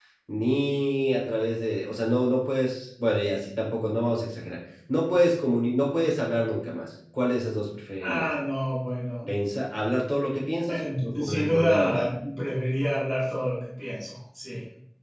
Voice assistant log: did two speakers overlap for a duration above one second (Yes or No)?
Yes